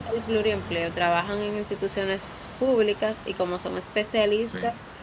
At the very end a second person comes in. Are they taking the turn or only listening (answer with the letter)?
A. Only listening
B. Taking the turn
A